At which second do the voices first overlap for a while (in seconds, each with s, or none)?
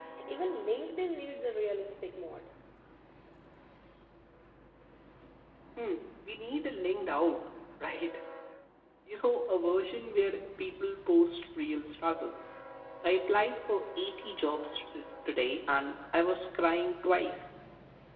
none